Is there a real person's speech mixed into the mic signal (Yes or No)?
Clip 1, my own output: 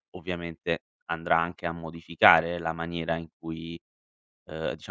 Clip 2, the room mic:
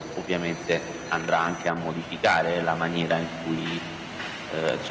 No